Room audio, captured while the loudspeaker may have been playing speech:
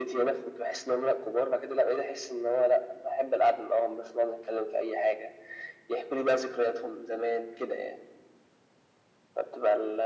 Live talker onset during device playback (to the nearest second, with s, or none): none